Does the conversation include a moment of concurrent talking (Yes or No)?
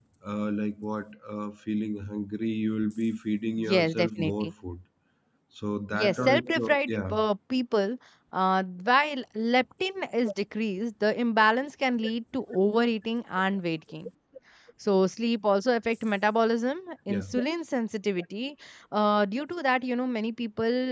Yes